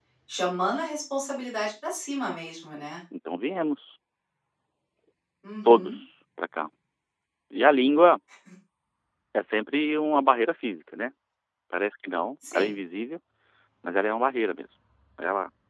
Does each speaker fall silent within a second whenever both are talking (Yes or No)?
Yes